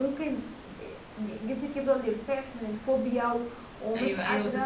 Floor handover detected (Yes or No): Yes